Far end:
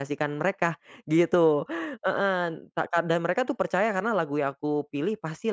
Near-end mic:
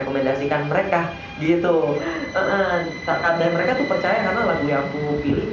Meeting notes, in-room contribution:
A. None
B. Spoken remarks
A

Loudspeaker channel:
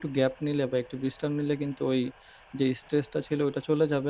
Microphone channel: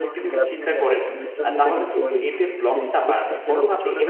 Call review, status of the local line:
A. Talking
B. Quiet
A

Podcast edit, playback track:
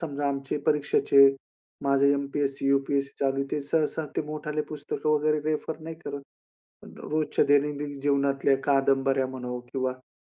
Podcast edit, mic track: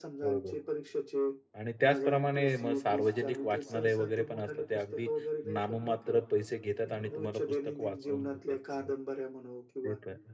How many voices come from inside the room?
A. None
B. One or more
B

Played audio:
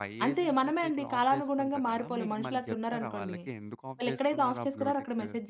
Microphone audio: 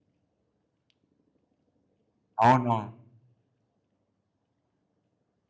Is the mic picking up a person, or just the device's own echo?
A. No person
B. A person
B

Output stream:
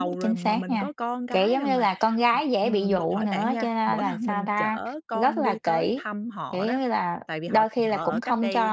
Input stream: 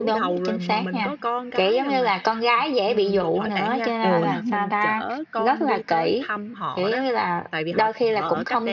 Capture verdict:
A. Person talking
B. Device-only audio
A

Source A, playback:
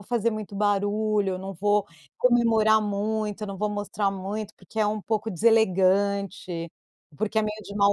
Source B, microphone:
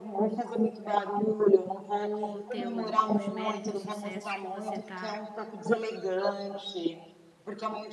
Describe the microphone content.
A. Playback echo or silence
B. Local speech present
B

